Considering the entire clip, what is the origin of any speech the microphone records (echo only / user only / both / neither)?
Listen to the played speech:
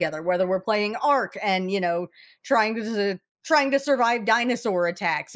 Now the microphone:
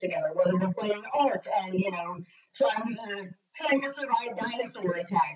echo only